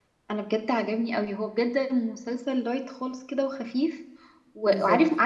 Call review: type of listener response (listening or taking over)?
listening